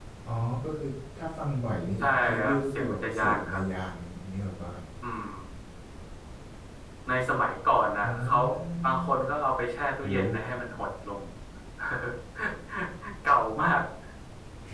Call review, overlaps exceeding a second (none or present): present